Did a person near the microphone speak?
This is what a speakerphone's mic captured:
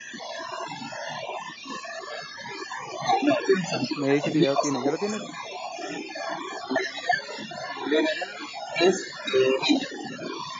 Yes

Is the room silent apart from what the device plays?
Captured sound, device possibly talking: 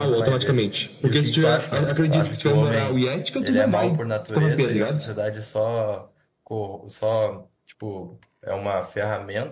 No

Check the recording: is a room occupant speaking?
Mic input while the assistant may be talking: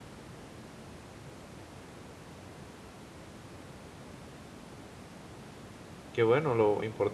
Yes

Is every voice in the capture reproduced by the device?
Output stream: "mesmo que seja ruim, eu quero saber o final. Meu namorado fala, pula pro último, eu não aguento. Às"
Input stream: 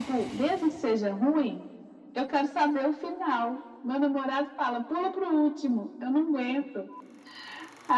Yes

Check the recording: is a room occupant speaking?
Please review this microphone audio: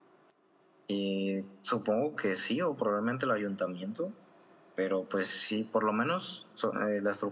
Yes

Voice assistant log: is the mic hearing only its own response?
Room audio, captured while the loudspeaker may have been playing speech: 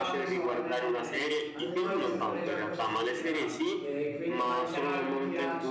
No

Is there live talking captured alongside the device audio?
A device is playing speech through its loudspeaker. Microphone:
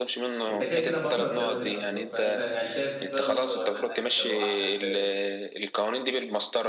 Yes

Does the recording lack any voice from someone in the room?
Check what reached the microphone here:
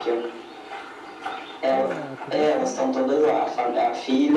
No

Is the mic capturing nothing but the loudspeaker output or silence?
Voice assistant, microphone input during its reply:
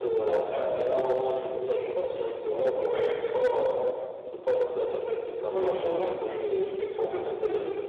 Yes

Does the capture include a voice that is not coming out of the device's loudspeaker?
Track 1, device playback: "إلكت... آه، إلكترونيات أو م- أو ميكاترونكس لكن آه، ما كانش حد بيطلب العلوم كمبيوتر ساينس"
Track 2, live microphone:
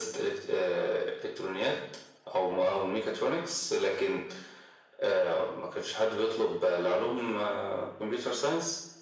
No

